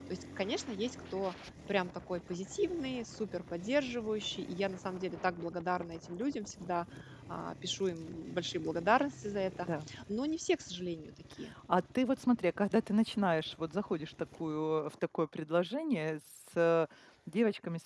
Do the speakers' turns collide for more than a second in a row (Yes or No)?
No